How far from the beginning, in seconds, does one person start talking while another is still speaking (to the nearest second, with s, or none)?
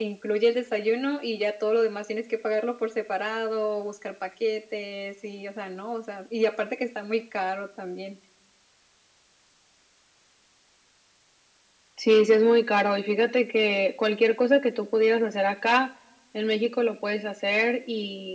none